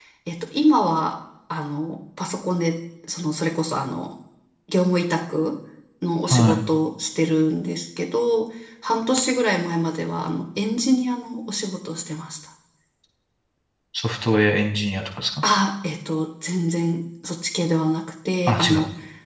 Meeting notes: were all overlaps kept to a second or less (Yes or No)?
Yes